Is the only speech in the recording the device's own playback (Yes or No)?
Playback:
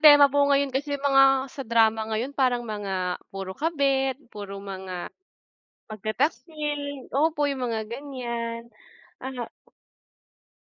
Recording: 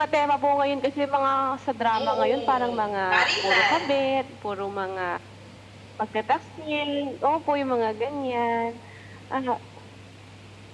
No